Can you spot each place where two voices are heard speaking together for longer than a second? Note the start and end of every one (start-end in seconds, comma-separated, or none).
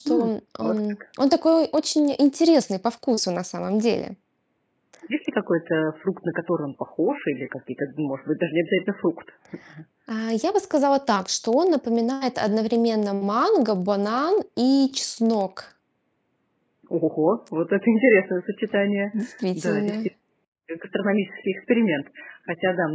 none